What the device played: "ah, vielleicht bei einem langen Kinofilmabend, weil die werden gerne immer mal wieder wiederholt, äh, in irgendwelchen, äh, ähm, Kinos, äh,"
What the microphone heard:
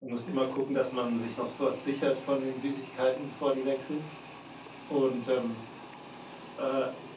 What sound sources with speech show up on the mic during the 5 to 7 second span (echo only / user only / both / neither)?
user only